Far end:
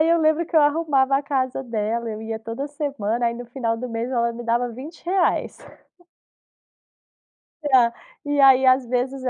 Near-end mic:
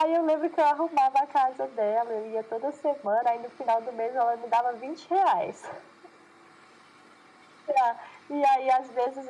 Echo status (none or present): present